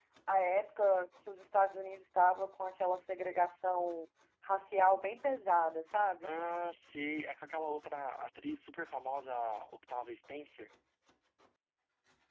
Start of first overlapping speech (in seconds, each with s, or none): none